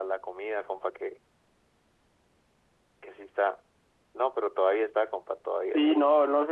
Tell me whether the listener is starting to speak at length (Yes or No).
Yes